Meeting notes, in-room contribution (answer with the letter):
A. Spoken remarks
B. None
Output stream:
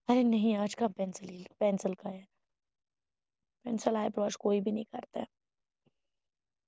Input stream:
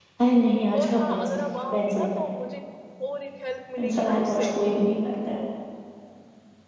A